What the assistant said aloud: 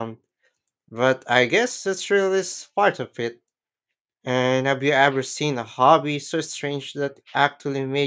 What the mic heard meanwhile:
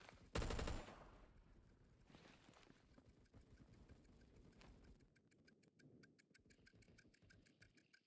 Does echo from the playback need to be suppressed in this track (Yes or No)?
No